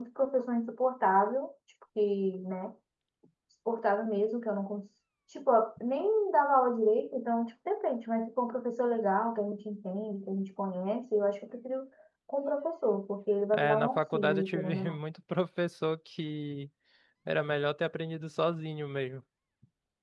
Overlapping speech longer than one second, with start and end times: 13.6-15.0

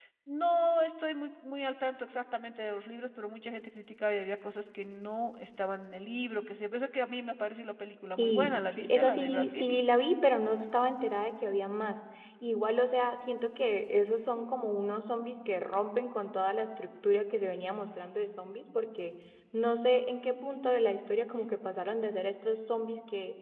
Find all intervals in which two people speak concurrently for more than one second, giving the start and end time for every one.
8.2-9.6

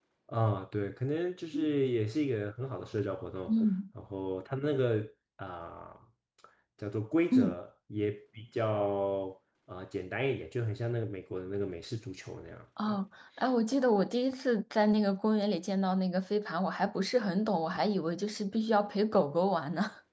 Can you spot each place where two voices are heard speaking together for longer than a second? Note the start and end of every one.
none

